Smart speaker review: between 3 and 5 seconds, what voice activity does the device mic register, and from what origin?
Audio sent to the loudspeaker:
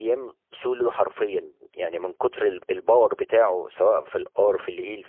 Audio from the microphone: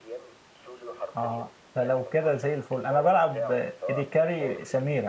both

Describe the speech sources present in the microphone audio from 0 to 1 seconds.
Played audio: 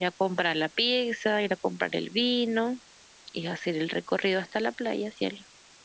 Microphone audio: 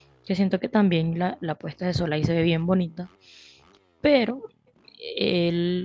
user only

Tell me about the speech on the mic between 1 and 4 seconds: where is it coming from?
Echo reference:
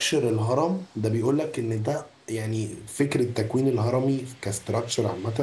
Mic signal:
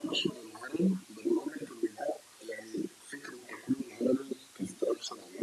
echo only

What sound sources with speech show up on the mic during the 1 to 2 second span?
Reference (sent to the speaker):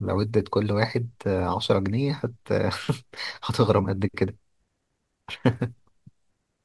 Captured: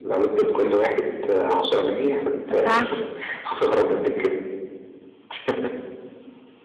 echo only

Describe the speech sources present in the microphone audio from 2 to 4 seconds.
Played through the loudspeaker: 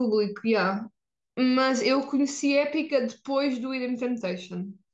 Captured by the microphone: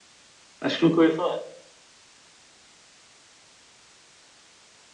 neither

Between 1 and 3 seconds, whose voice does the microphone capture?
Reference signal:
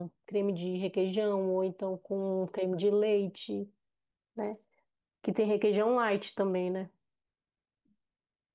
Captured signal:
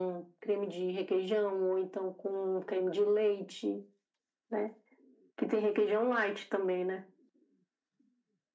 echo only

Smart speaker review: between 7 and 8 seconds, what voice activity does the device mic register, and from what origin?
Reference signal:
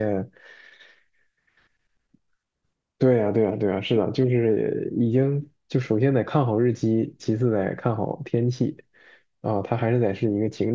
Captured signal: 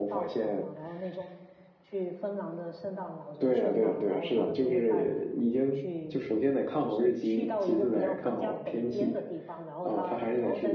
both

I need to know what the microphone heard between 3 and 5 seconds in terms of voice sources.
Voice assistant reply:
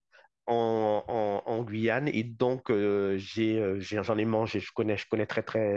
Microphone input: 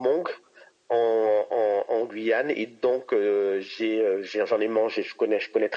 echo only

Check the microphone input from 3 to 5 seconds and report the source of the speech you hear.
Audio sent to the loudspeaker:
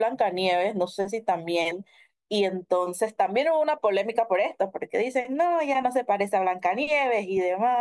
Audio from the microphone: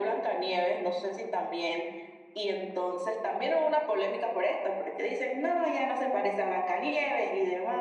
echo only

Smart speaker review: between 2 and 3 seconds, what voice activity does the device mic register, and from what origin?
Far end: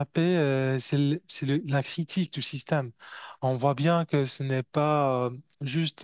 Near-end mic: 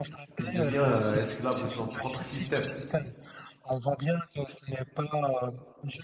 both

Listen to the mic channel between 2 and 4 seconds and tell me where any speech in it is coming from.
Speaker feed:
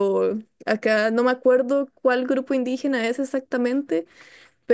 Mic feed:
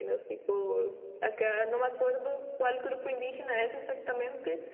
echo only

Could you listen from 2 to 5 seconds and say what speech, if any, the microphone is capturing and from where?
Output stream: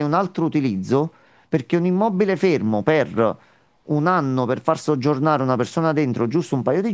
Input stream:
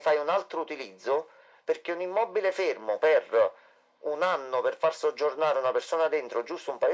echo only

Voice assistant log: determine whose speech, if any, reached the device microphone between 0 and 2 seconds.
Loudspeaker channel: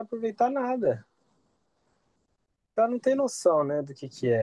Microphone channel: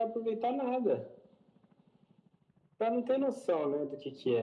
echo only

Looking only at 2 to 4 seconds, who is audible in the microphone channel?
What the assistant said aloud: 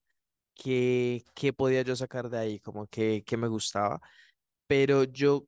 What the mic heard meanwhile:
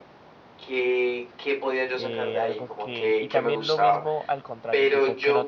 both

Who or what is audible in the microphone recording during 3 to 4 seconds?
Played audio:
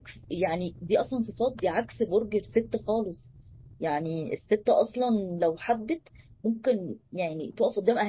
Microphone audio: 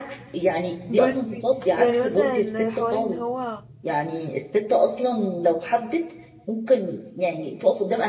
both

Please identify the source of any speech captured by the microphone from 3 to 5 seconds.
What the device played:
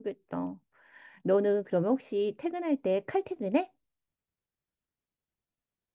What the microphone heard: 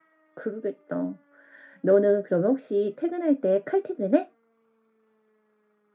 echo only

